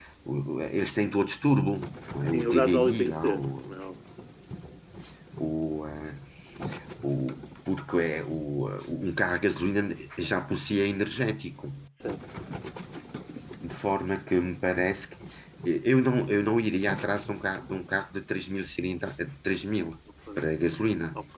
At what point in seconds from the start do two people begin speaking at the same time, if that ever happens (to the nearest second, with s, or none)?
2 s